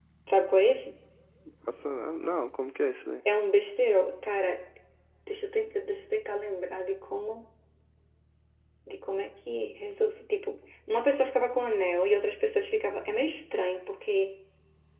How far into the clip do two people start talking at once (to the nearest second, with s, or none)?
none